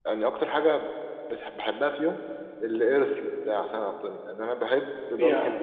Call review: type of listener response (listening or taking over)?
listening